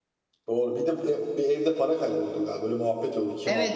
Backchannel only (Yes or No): No